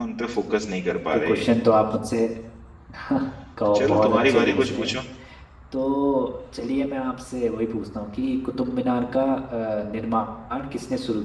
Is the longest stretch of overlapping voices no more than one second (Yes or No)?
No